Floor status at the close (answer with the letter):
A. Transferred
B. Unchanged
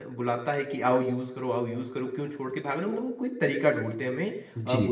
B